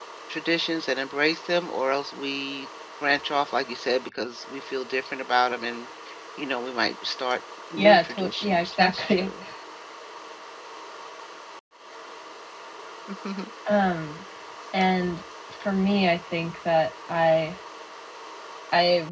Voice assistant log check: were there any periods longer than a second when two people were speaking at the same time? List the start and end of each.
7.8-9.3

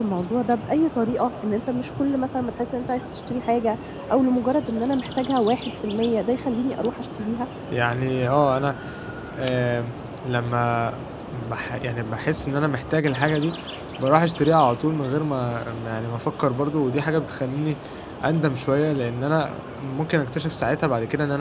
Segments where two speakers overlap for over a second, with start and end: none

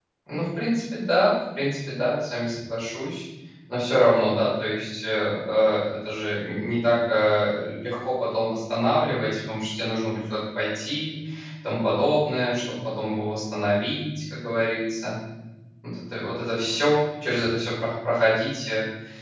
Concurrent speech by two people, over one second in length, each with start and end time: none

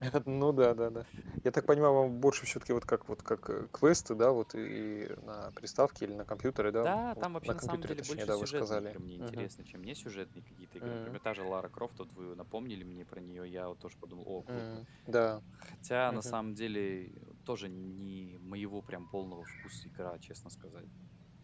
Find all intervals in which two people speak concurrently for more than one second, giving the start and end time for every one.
6.8-9.5

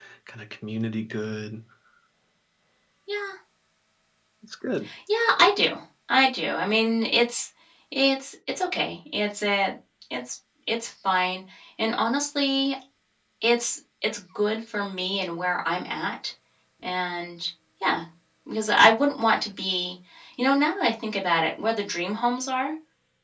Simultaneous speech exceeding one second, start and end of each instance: none

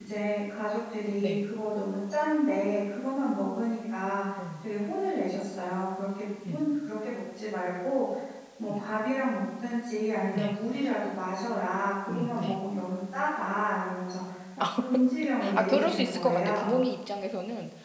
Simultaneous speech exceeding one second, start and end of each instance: 15.5-16.8

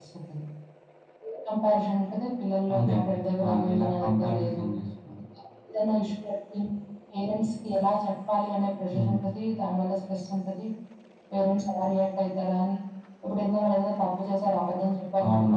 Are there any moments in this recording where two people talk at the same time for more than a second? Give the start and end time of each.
2.8-4.6

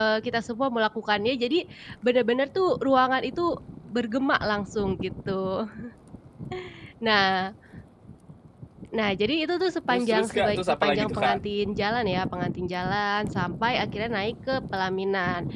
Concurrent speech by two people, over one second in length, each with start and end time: 9.9-11.4

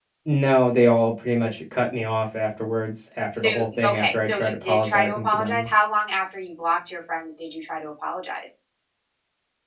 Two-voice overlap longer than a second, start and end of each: 3.4-5.7

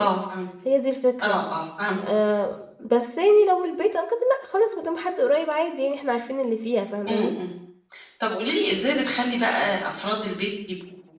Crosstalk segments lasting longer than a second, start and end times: none

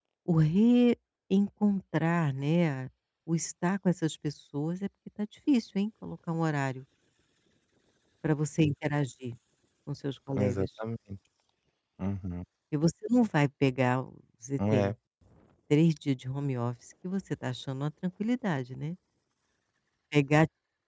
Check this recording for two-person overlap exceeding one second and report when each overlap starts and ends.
none

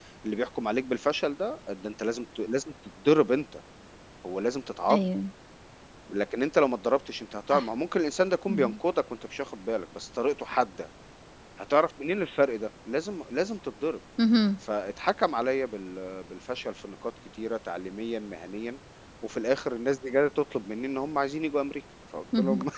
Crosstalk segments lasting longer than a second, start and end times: none

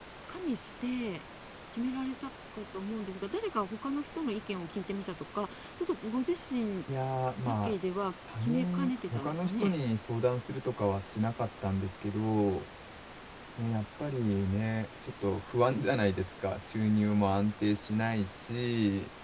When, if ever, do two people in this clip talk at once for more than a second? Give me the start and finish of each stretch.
8.4-9.7

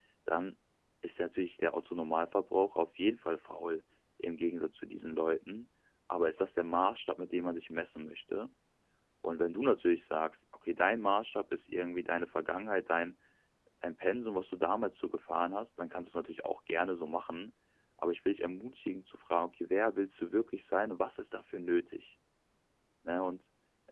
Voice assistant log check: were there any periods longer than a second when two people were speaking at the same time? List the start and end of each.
none

